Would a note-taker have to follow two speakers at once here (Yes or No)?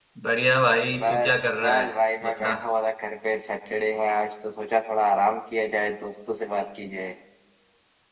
Yes